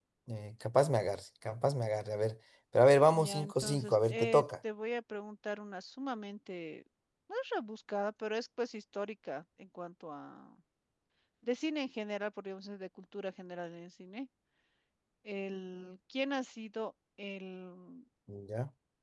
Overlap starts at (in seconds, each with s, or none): 3.1 s